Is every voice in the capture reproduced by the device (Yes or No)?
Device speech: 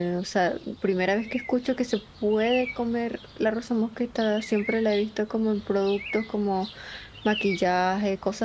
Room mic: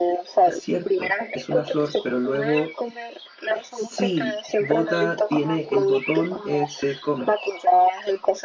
No